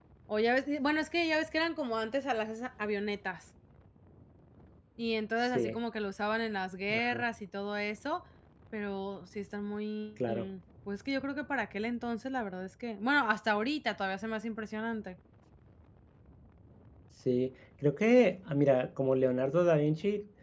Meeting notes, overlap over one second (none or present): none